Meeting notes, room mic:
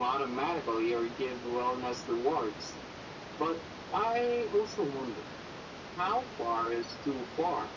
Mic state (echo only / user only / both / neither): echo only